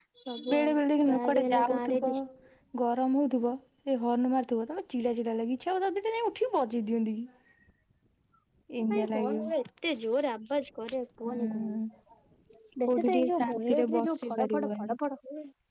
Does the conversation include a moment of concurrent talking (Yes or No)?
Yes